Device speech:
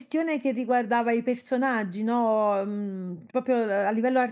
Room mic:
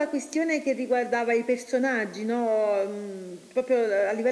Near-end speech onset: none

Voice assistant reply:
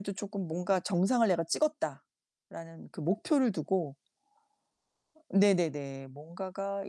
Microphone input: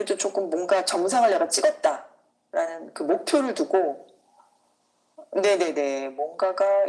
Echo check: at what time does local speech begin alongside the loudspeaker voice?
none

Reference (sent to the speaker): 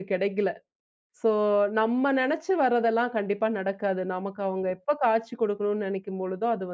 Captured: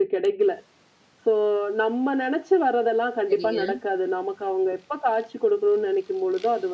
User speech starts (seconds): 3.3 s

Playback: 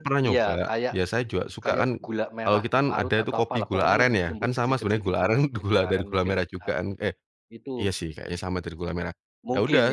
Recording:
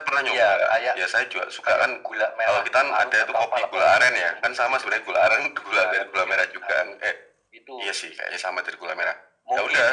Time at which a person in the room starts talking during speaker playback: none

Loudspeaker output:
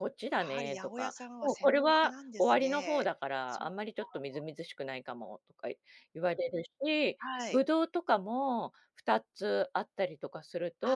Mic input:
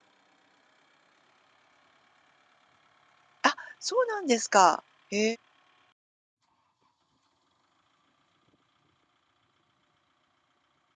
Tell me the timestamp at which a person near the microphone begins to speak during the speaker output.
3.4 s

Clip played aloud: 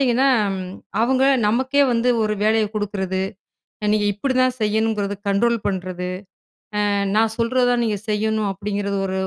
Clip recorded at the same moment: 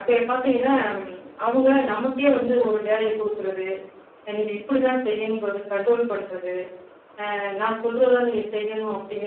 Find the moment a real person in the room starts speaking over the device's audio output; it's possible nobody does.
none

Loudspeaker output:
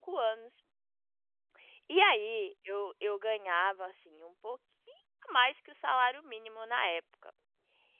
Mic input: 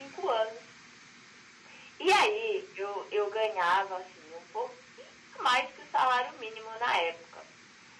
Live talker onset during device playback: none

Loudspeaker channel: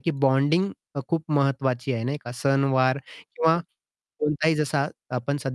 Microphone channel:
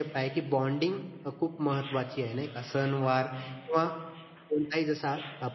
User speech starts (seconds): none

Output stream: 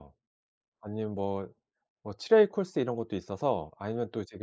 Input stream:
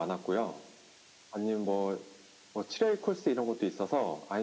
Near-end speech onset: none

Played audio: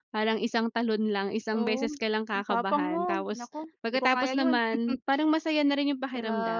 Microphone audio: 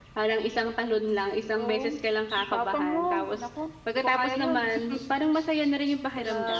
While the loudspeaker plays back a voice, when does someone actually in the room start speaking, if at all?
none

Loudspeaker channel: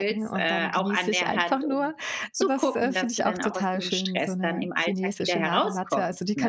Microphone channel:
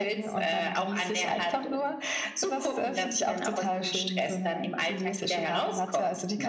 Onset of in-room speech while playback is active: none

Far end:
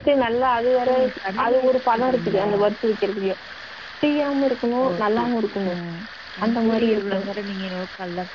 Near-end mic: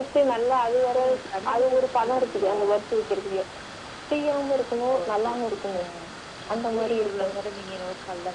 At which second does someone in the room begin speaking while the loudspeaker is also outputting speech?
none

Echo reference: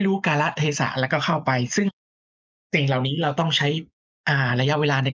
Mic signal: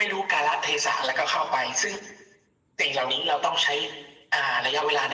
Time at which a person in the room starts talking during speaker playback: none

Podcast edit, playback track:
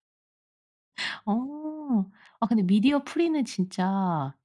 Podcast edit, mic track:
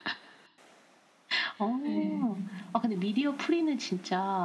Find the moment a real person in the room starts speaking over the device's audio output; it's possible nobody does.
1.8 s

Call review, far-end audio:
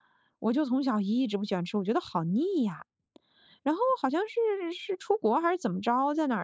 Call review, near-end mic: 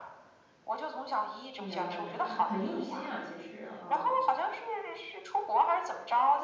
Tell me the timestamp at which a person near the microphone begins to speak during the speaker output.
1.6 s

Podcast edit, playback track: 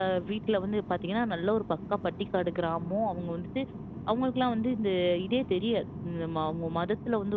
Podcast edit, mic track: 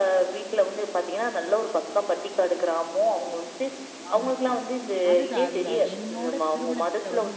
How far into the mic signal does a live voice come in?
4.1 s

